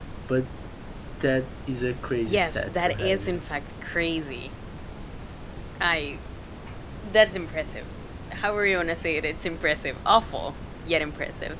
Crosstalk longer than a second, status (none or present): present